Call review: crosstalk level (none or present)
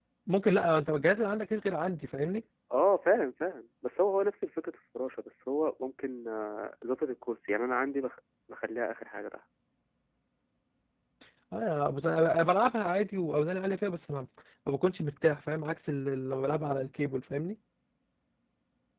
none